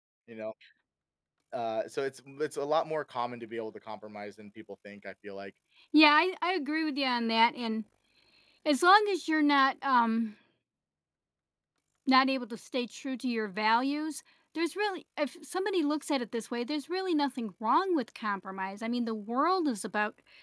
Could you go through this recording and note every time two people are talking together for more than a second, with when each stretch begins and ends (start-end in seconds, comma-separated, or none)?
none